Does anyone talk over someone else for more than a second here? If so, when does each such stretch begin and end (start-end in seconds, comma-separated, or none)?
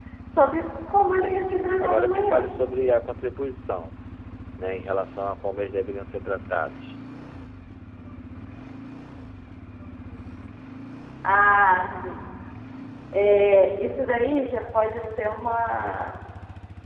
1.2-2.4